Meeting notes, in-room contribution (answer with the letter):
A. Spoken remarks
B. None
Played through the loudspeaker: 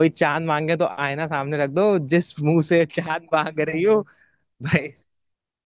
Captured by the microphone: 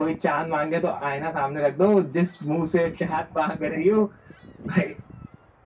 B